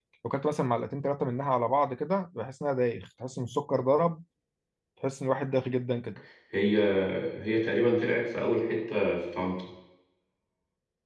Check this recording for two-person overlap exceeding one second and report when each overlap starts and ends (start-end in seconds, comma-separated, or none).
none